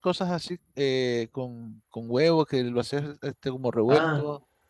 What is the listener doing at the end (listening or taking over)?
taking over